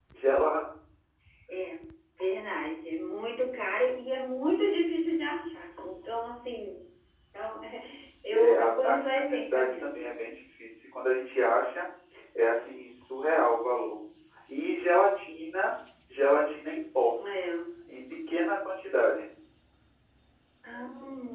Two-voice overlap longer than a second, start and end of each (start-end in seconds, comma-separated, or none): 8.3-10.2